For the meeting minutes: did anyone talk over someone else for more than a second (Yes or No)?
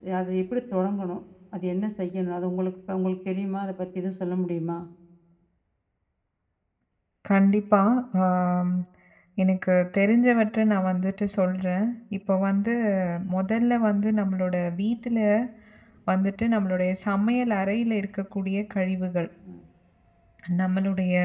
No